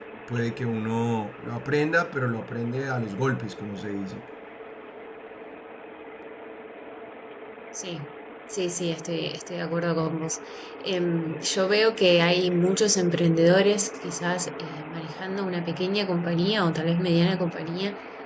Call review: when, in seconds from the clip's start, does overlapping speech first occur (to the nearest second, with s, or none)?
none